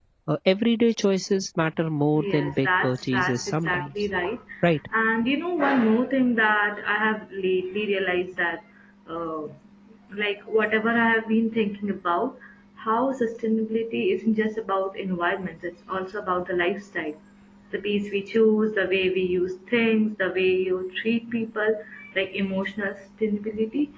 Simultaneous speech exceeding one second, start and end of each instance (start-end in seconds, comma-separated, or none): 2.2-3.9